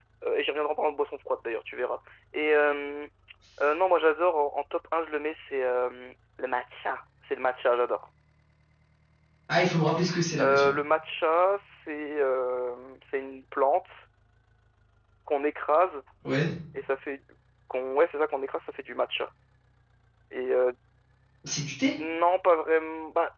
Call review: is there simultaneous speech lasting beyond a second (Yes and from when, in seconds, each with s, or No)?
No